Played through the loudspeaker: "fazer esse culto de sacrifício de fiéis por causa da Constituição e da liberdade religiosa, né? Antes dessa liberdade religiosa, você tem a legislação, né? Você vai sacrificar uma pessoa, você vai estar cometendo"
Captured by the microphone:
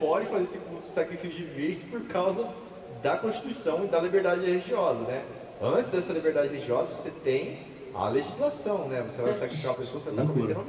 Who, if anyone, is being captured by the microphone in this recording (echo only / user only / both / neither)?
both